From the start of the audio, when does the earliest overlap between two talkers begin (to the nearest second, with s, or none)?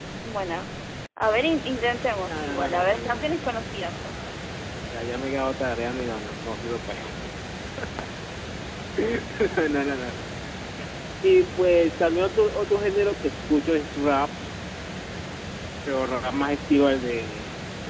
2 s